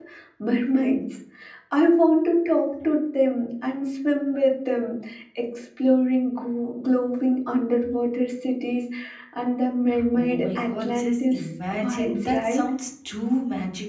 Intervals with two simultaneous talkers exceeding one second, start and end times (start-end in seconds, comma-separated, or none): 10.1-12.6